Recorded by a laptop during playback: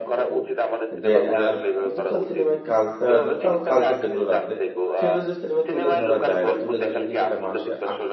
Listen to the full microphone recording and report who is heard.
both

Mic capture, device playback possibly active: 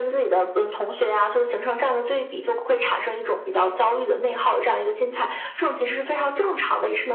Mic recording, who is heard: echo only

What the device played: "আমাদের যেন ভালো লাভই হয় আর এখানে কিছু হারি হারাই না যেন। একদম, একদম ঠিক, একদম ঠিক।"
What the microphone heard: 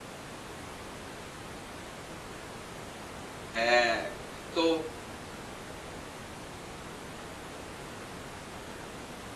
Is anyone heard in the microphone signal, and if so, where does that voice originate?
user only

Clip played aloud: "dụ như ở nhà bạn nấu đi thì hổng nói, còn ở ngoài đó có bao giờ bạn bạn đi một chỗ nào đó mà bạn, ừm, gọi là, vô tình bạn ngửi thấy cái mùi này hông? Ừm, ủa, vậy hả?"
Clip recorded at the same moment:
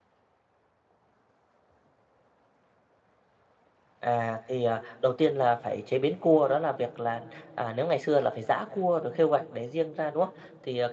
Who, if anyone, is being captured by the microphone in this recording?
user only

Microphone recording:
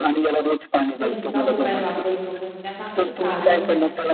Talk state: both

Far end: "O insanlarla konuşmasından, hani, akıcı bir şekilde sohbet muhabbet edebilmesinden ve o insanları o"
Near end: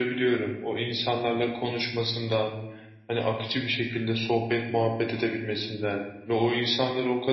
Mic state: echo only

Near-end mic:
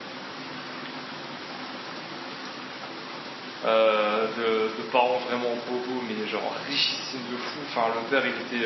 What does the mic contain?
user only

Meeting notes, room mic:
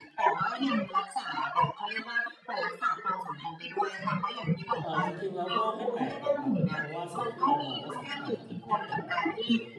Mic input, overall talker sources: both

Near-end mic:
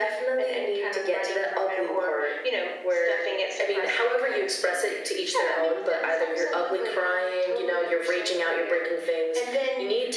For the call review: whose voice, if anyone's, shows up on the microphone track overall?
echo only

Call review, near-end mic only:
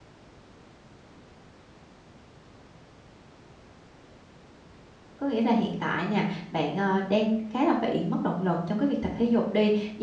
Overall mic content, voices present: user only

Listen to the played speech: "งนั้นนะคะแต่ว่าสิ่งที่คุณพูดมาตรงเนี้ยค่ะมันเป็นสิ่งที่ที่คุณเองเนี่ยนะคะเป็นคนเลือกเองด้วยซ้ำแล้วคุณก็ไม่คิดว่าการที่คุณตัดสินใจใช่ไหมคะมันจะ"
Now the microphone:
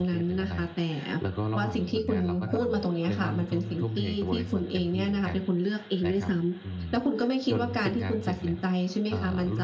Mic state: both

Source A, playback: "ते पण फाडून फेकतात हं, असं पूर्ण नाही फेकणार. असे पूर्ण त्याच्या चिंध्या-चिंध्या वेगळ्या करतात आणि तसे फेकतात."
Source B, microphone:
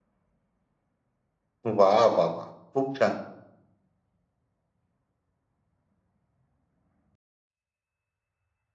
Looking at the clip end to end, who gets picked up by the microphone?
user only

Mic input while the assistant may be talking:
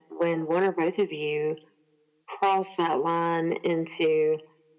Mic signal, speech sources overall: echo only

